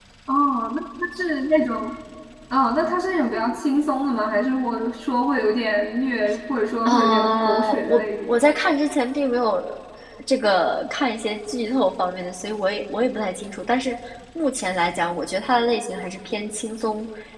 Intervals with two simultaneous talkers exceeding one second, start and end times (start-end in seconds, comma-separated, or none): 6.8-8.4